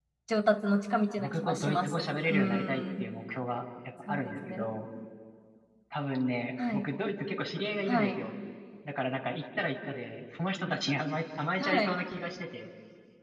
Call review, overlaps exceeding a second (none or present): present